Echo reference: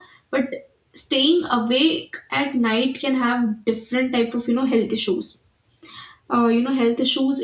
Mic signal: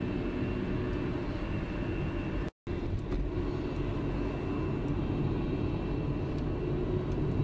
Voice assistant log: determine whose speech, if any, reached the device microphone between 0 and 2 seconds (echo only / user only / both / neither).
neither